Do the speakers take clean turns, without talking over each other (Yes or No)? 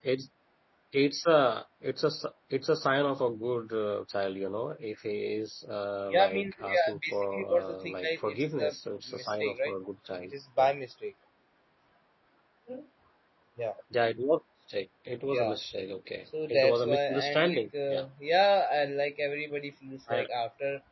No